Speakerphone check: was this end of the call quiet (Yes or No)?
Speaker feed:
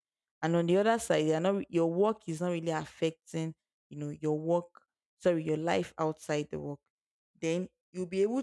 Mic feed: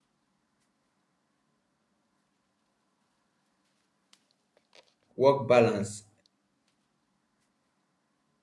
No